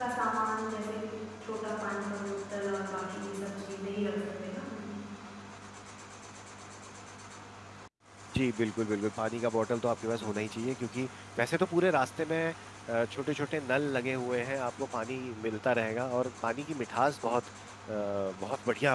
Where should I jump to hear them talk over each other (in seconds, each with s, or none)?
none